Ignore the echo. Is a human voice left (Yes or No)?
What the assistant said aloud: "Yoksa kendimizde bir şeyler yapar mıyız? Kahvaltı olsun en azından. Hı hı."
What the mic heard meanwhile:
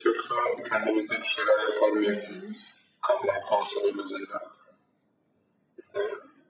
Yes